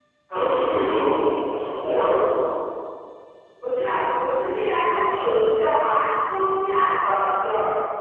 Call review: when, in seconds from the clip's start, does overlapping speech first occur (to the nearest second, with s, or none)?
none